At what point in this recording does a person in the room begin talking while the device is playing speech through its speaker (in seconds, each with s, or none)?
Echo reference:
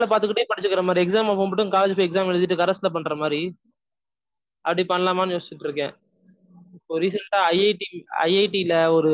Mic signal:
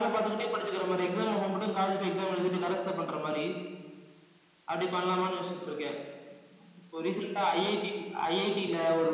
none